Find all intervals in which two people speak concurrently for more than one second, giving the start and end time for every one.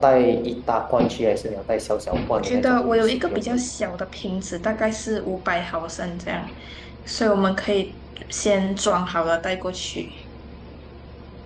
2.3-3.6

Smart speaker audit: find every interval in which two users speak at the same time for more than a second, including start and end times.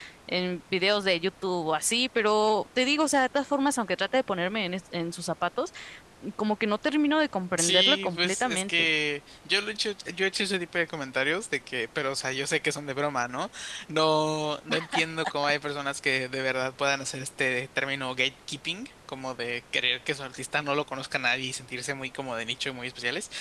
7.6-8.9

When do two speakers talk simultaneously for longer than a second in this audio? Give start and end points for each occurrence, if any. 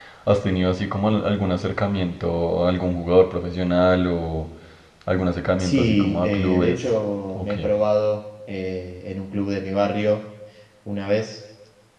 5.6-6.9

